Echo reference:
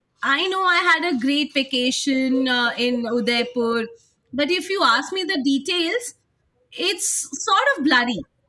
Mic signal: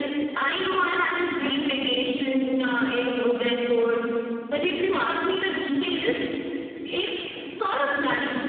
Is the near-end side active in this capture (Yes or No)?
No